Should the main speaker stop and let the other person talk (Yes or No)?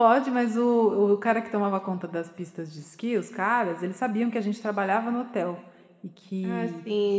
Yes